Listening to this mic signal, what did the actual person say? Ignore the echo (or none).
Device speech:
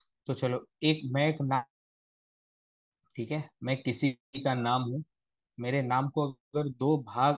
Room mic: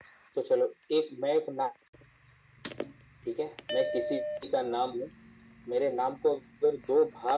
none